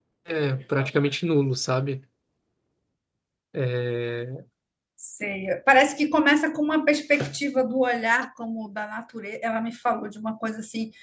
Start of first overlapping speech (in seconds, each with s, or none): none